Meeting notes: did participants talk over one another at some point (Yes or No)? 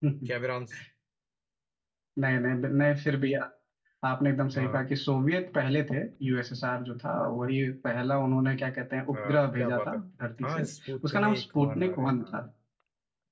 Yes